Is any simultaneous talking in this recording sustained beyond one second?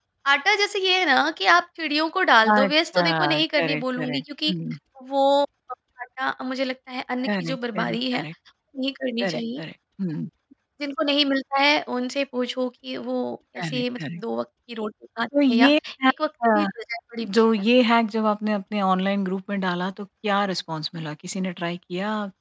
Yes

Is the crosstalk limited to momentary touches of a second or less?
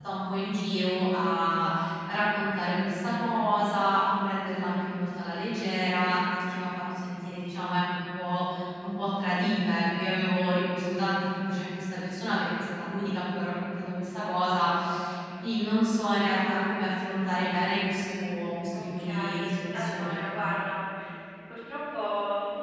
No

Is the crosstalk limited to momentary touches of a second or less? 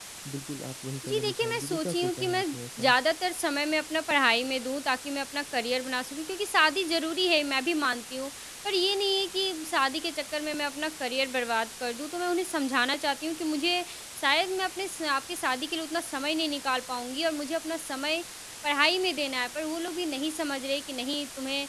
No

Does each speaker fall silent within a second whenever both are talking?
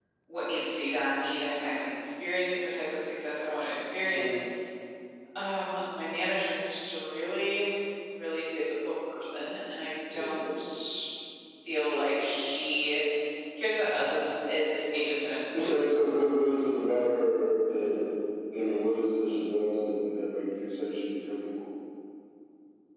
Yes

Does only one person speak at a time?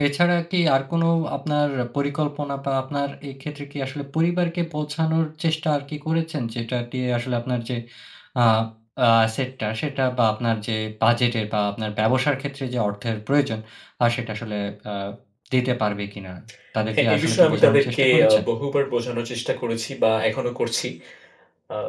No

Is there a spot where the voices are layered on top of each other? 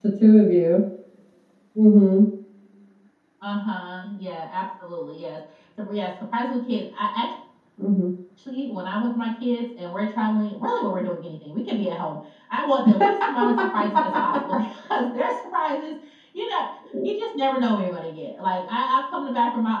No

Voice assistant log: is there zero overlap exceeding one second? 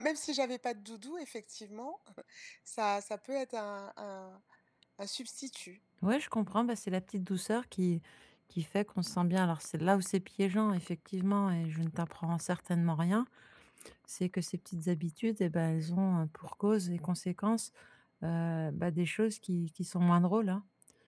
Yes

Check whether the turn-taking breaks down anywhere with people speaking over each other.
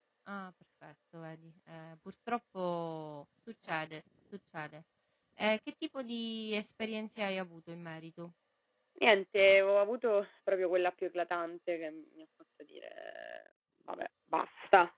No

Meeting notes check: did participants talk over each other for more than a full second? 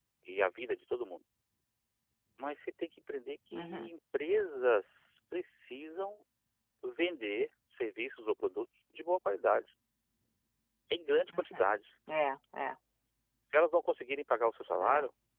No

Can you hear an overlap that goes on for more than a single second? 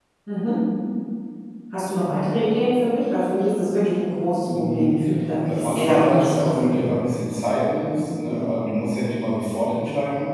Yes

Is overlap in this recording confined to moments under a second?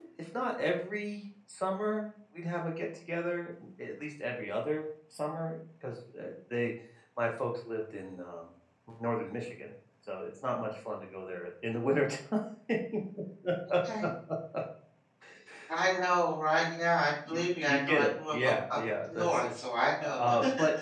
No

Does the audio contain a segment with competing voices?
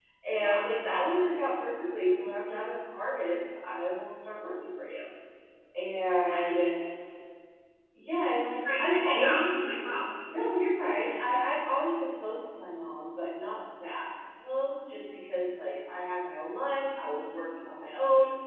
Yes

